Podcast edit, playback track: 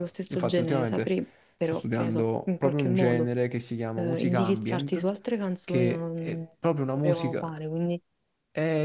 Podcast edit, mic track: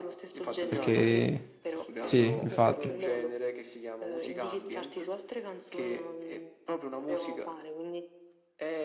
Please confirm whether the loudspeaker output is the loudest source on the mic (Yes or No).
No